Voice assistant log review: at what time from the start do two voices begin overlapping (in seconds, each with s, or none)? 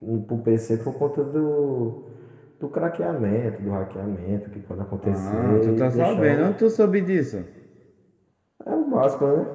5.0 s